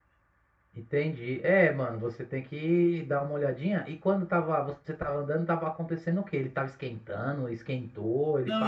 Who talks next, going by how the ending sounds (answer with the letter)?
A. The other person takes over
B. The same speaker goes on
A